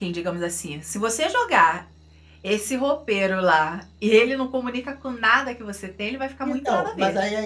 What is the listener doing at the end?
taking over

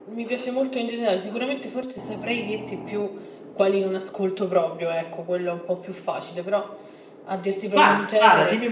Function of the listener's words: taking over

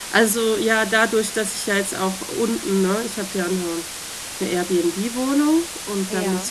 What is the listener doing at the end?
listening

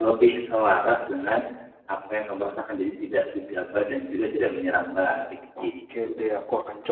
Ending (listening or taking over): taking over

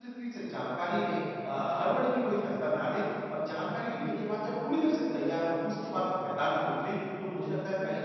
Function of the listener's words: listening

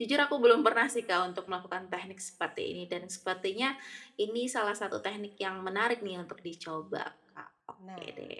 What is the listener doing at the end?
taking over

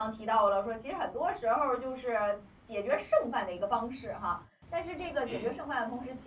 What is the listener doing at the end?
listening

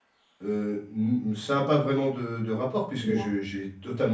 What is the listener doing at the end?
listening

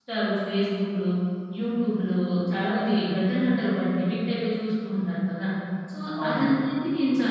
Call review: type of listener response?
listening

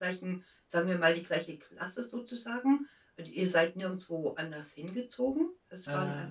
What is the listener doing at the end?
listening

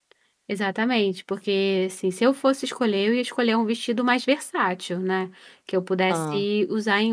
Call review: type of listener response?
listening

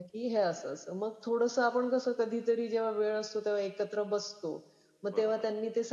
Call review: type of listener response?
listening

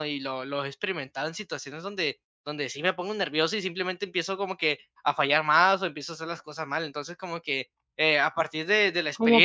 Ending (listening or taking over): taking over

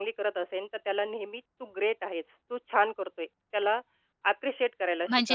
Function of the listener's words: taking over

